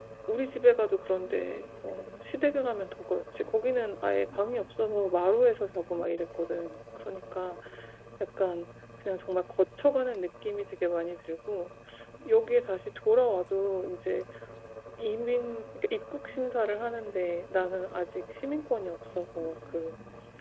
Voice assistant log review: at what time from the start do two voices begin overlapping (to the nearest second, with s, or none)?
none